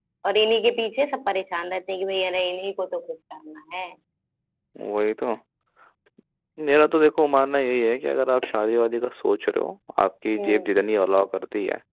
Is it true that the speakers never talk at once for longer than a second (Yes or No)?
Yes